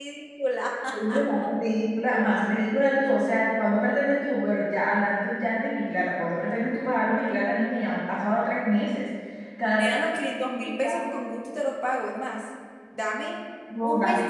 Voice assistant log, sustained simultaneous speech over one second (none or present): none